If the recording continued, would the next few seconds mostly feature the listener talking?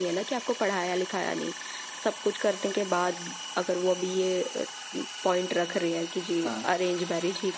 No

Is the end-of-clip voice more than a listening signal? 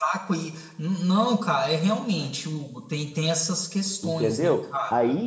Yes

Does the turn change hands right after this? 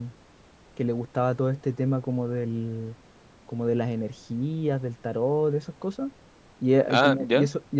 No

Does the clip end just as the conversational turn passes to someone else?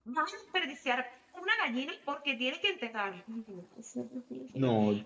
No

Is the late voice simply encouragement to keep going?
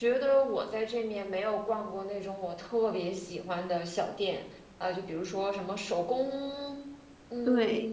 Yes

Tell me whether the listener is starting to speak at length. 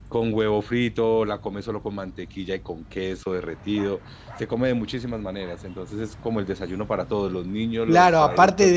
Yes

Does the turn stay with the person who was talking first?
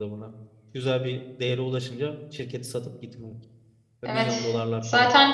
No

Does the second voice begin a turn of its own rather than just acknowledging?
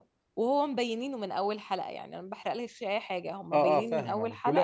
Yes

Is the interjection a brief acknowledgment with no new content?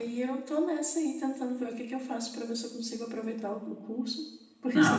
No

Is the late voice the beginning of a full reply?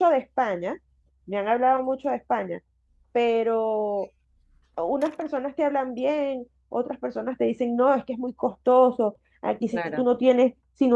No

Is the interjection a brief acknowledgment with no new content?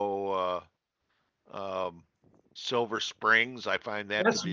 No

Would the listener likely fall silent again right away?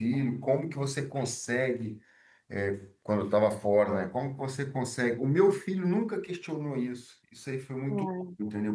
Yes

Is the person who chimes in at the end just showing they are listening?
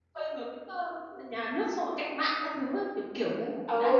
No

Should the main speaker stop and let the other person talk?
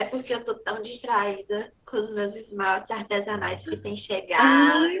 Yes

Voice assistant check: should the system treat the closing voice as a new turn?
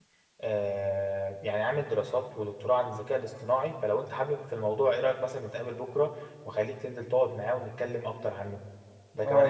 Yes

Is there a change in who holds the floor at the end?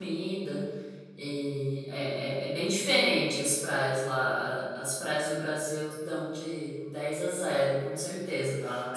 No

